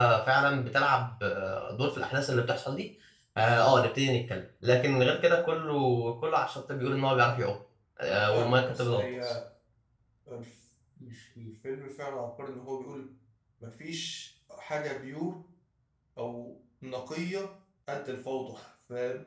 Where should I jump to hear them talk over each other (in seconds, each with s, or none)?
8.1 s